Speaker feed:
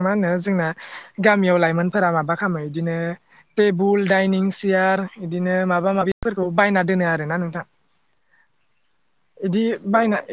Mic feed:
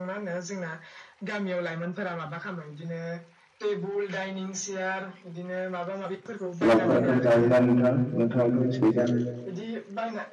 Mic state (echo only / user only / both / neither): both